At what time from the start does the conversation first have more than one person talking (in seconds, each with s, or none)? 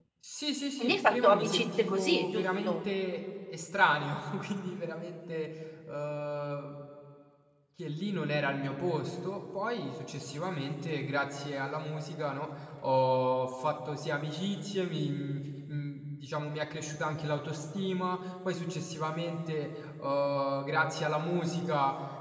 0.8 s